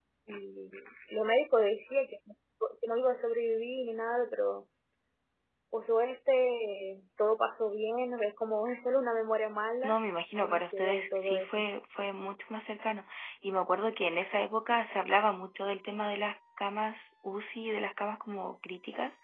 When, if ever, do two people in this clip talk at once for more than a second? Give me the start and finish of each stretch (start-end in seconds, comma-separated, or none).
10.4-11.7